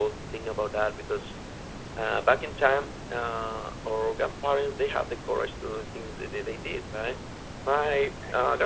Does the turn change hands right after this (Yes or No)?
No